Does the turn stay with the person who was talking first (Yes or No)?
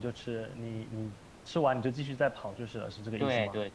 No